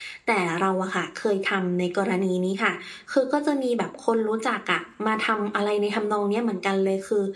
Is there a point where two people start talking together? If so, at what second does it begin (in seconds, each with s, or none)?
none